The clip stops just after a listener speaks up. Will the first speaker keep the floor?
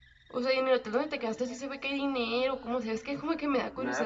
No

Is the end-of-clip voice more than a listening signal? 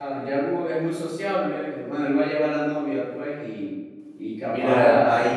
Yes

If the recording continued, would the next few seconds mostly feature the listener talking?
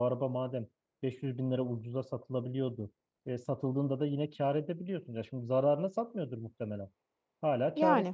No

